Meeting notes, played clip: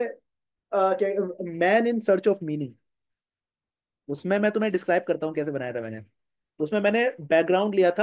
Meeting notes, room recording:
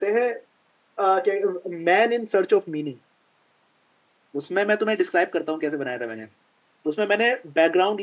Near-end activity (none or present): none